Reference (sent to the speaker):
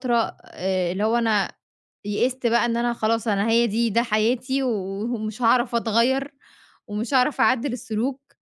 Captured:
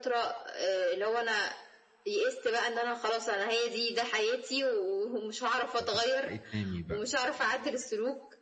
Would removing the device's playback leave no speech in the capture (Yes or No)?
No